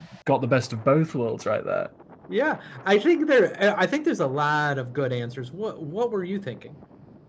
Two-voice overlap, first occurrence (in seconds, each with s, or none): none